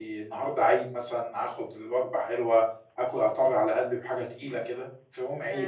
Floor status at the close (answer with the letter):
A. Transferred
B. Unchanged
A